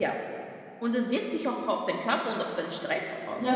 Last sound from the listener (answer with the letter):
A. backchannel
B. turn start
B